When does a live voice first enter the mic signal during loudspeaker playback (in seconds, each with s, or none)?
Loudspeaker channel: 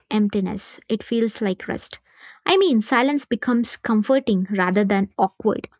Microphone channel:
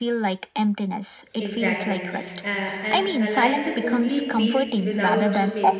1.4 s